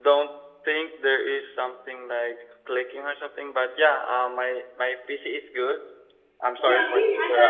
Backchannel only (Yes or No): No